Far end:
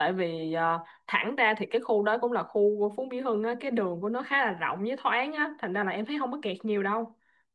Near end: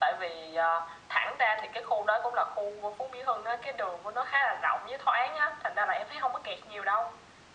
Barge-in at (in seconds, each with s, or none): none